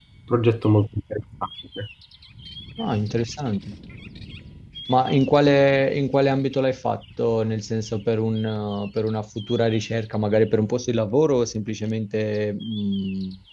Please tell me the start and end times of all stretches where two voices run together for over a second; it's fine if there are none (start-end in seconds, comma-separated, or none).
none